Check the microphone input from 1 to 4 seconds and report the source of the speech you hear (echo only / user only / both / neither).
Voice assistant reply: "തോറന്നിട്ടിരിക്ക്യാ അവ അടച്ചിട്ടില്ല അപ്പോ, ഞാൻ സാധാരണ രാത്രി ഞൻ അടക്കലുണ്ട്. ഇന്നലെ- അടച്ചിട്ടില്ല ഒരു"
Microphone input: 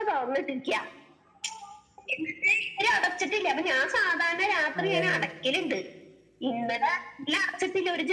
echo only